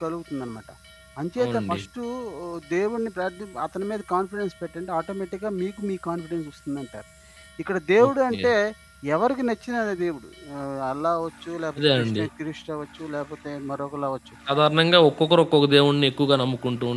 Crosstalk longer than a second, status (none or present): none